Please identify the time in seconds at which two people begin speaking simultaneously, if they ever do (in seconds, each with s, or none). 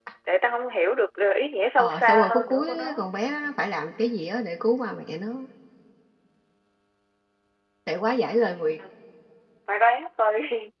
1.8 s